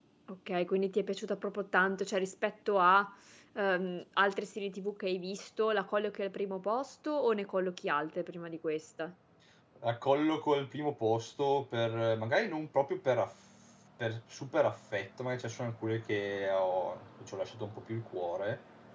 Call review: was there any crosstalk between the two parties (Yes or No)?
No